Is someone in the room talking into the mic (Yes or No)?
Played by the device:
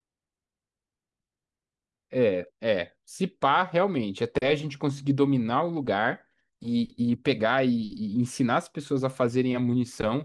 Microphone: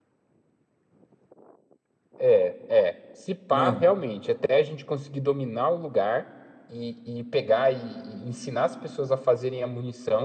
Yes